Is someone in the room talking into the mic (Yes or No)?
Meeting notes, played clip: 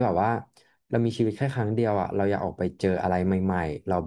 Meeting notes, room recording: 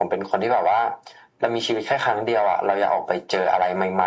No